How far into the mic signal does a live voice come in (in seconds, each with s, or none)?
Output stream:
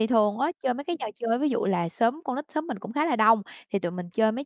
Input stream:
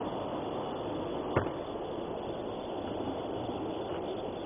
none